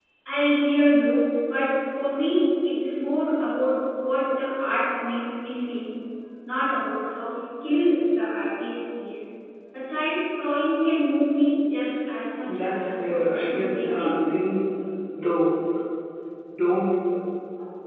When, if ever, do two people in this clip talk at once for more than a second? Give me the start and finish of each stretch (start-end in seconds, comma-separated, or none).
12.6-14.1